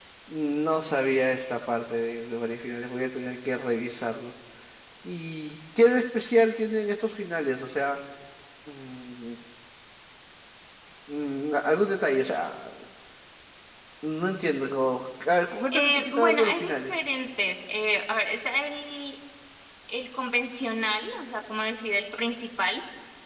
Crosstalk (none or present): present